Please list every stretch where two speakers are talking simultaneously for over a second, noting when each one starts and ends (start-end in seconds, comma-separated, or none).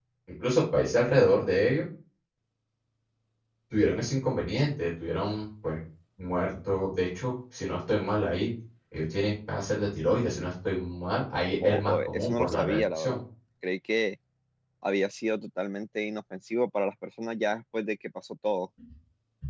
11.6-13.2